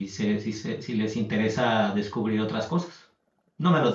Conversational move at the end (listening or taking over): taking over